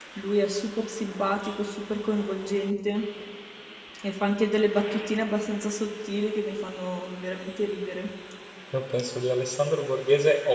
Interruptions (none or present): none